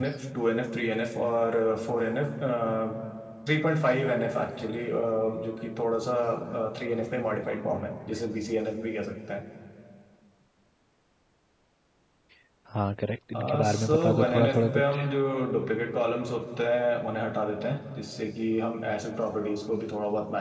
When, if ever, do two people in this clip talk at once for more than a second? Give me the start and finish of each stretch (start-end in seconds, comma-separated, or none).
13.3-15.0